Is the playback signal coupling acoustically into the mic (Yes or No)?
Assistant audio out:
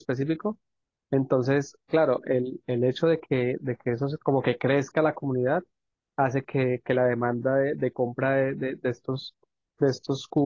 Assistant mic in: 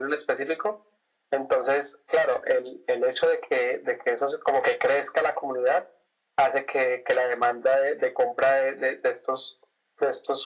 Yes